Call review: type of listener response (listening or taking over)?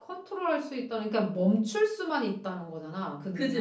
taking over